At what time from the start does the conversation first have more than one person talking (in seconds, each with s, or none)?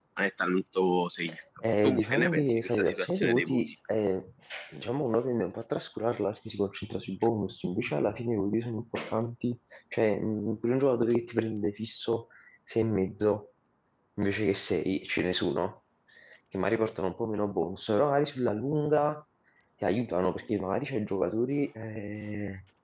1.6 s